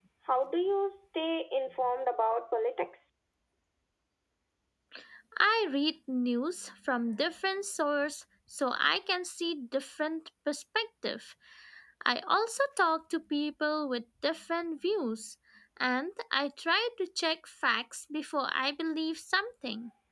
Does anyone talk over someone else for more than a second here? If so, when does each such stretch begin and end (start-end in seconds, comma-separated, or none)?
none